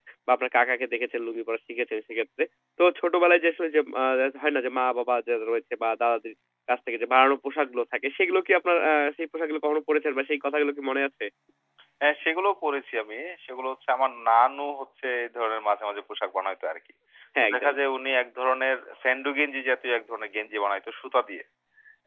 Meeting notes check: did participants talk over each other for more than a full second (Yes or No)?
No